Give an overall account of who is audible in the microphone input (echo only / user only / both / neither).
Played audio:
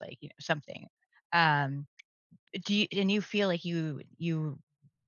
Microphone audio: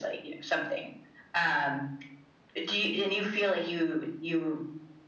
echo only